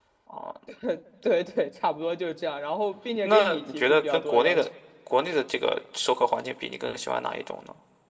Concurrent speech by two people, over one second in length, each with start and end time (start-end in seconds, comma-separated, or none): 3.2-4.7